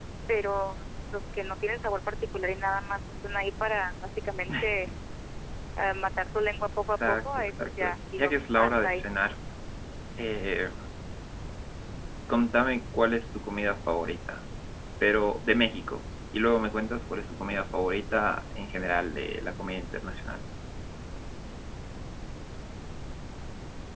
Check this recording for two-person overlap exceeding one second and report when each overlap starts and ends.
6.9-9.0

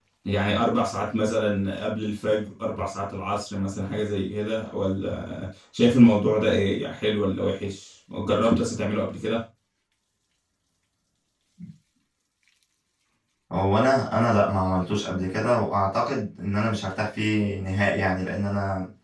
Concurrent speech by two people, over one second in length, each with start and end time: none

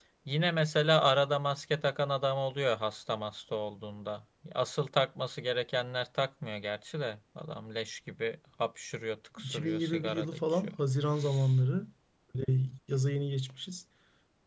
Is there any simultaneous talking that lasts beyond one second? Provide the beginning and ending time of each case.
9.4-10.8

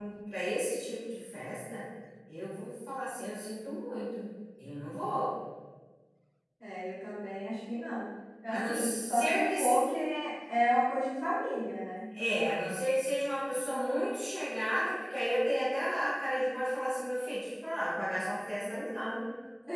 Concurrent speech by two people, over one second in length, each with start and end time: 8.5-9.8

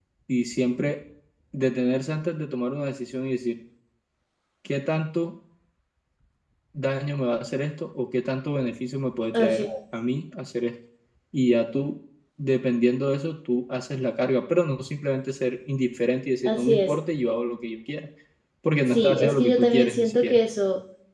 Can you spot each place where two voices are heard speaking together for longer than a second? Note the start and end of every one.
18.9-20.4

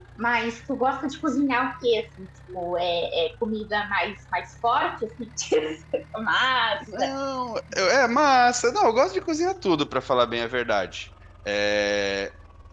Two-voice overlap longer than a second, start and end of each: none

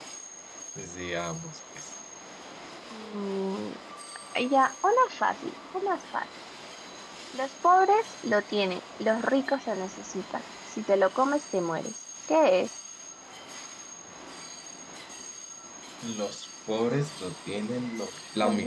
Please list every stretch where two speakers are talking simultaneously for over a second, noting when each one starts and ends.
none

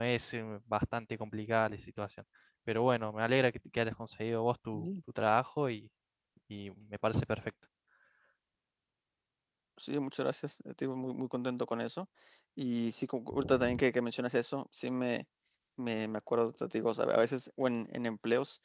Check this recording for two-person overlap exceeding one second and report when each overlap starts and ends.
none

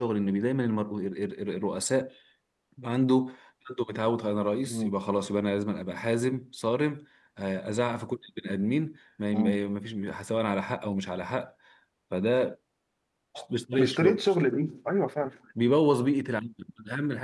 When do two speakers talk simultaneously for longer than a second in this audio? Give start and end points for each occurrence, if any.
none

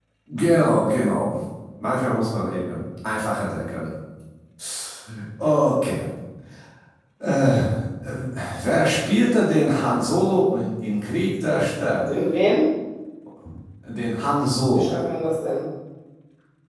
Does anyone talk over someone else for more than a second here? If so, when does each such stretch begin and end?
none

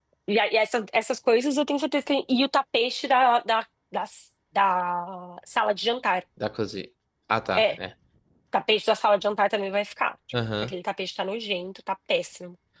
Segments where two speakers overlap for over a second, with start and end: none

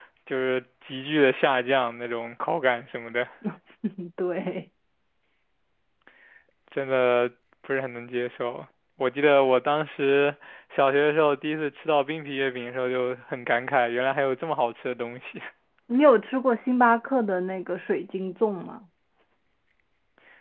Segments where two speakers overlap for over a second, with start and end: none

